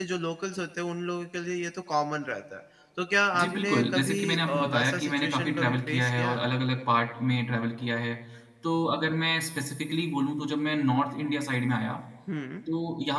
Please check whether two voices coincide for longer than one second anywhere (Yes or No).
Yes